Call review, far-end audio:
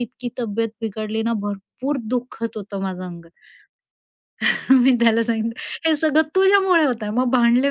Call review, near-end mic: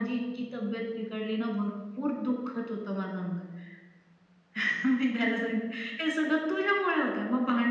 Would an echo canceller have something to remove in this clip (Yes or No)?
Yes